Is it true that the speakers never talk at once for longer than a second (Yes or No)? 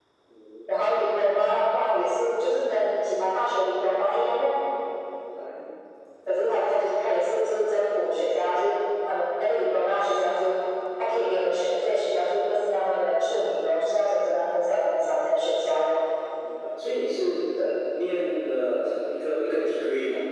Yes